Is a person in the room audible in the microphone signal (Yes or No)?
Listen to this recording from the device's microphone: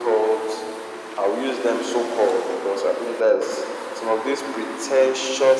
No